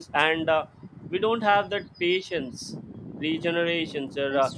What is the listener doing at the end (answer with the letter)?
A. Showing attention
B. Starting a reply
A